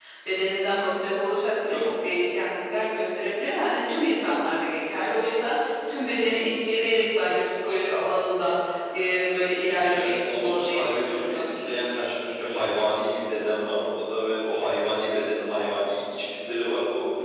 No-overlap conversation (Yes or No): No